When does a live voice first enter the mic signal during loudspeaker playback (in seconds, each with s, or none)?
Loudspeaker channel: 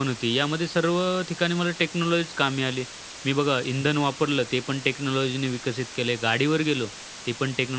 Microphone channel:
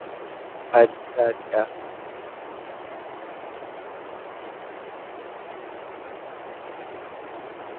0.7 s